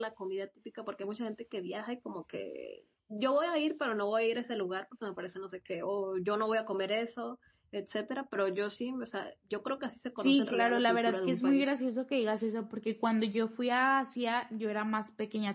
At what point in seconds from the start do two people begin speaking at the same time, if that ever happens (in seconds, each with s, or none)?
10.2 s